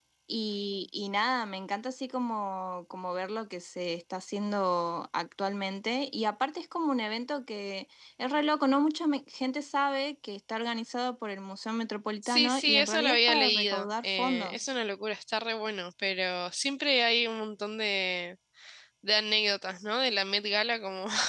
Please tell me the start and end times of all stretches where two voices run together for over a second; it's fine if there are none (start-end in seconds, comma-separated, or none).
12.2-14.6